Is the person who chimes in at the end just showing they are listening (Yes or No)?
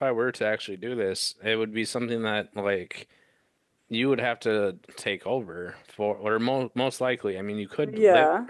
No